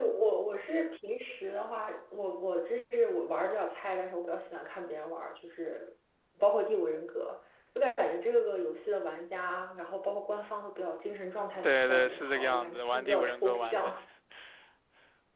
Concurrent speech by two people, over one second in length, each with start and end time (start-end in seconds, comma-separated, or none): 11.6-13.9